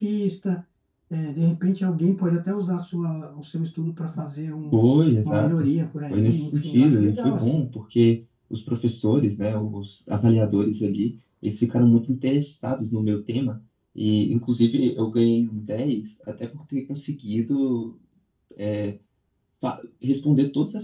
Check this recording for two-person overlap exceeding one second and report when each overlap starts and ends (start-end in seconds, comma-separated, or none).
6.1-7.7